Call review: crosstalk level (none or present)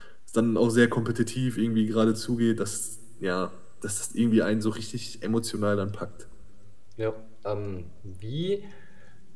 none